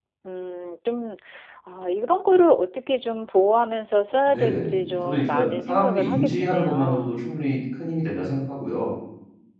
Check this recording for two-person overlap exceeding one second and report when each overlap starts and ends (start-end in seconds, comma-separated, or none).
4.3-7.2